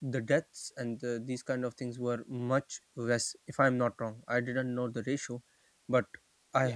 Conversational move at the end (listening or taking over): listening